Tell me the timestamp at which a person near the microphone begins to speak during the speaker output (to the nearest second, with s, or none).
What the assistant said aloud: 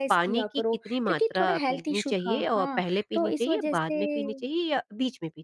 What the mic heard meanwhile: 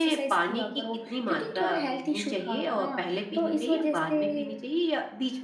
none